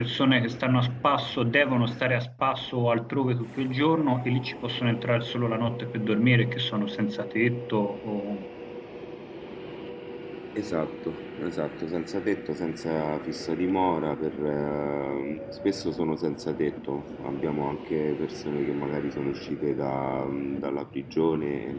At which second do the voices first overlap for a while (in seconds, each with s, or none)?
none